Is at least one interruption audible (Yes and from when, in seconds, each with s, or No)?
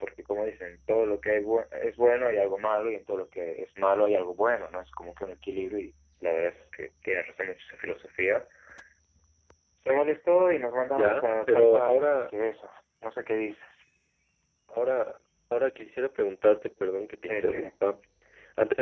Yes, from 10.9 s